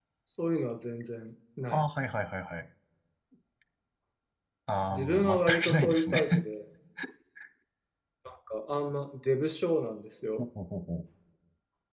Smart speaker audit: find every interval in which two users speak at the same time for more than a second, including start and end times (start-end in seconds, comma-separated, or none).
4.9-6.2